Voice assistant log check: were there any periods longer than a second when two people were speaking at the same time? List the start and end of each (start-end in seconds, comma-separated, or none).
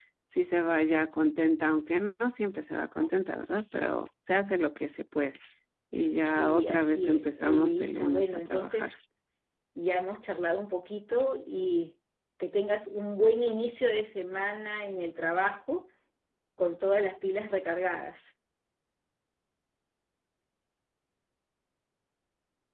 6.2-8.9